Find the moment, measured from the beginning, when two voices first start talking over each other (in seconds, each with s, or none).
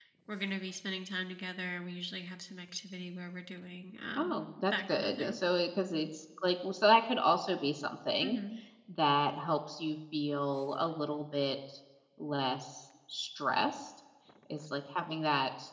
4.2 s